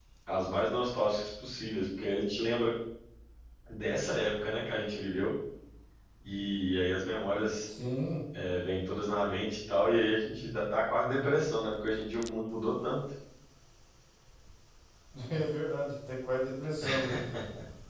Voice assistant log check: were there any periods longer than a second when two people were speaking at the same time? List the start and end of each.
none

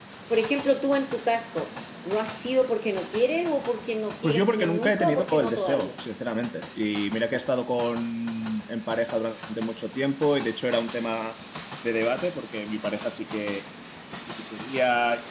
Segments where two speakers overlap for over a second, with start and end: 4.2-5.9

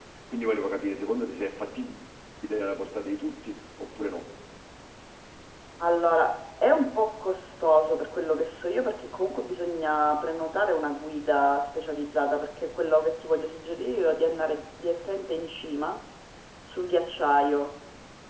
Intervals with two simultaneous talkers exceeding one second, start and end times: none

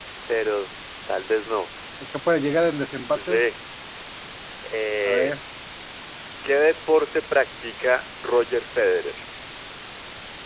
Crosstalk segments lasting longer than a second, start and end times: none

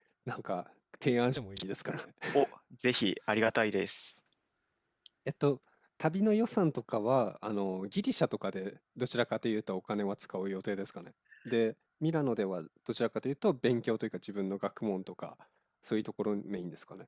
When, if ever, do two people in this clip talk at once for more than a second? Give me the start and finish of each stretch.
none

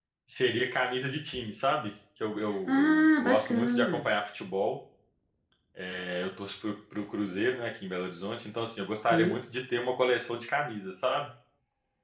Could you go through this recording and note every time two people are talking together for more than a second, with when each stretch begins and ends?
2.7-4.1

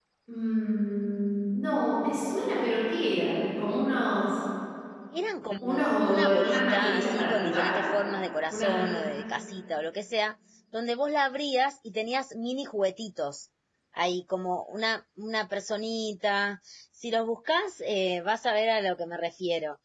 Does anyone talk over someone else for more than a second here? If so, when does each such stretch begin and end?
5.6-7.8

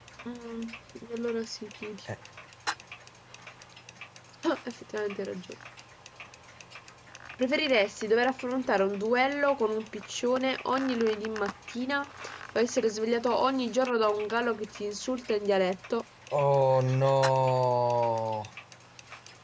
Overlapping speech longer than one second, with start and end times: none

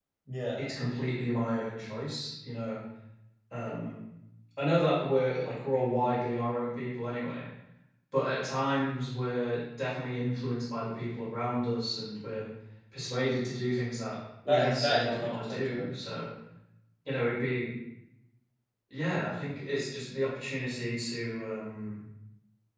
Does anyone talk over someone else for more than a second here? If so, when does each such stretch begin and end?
14.5-15.9

